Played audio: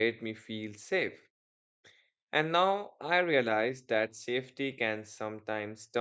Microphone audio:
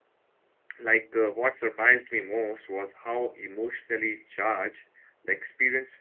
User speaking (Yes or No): Yes